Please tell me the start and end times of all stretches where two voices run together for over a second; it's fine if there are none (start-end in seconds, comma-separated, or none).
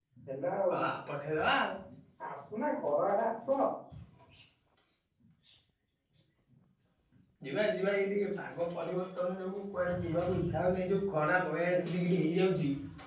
none